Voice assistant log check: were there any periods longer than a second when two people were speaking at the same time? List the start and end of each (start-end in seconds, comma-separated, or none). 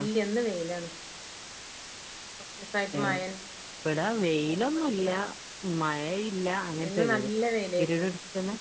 none